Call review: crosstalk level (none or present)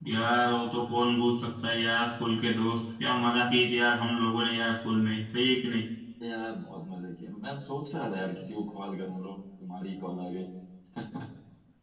none